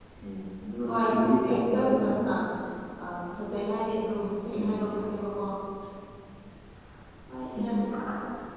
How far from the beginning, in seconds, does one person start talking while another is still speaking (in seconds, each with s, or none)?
0.9 s